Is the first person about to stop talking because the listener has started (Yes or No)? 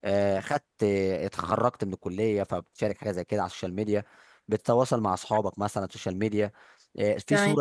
No